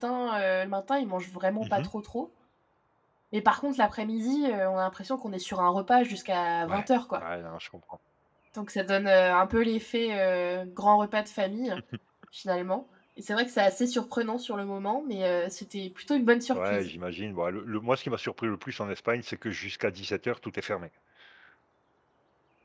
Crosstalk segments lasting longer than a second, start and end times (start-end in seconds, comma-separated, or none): none